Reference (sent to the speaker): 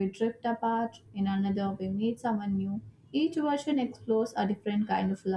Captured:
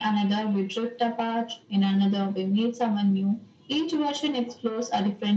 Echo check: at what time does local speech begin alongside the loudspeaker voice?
none

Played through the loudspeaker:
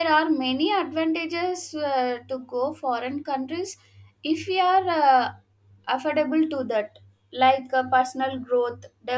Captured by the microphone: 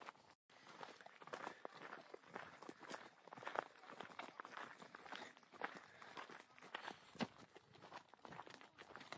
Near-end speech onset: none

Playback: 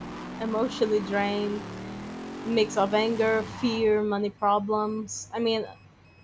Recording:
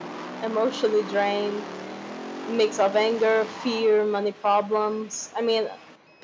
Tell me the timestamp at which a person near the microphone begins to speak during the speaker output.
none

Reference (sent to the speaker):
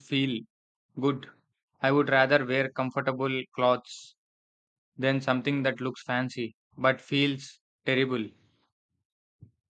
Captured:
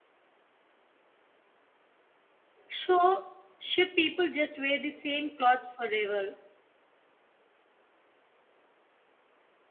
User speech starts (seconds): 2.7 s

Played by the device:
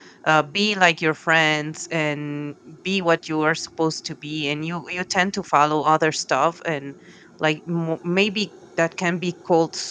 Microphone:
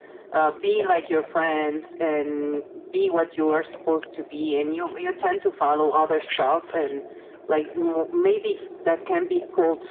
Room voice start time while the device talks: none

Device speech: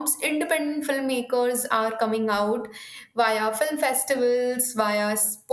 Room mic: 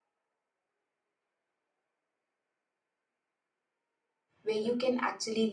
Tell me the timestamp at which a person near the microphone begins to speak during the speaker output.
4.4 s

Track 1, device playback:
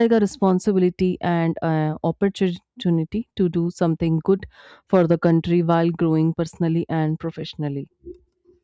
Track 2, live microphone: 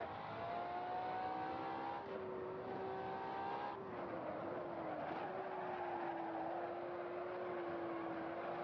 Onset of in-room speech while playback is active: none

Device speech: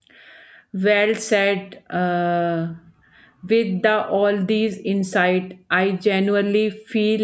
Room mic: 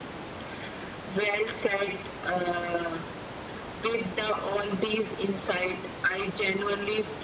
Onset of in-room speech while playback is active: none

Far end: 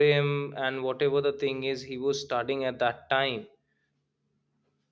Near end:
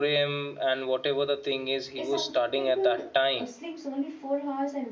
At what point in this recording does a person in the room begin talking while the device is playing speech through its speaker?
1.9 s

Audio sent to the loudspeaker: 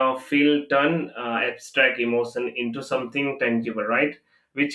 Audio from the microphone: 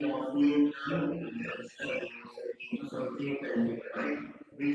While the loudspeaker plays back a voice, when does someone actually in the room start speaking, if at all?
none

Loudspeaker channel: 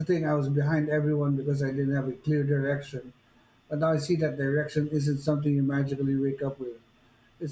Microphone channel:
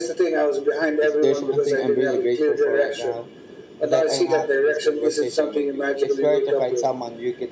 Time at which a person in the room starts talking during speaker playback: 1.0 s

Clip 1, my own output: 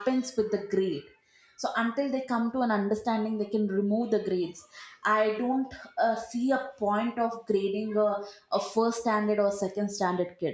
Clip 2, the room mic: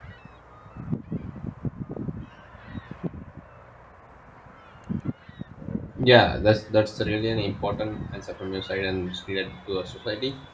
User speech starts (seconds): 6.0 s

